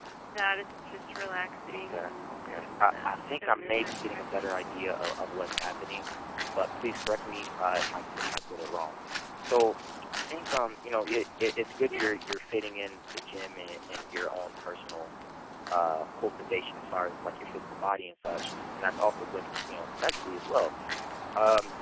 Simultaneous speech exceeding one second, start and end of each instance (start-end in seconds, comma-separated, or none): 1.7-4.5